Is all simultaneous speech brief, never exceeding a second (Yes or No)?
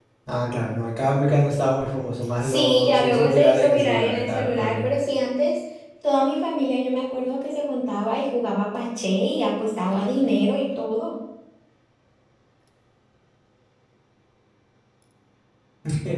No